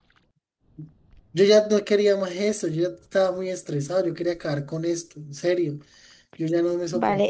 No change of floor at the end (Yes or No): No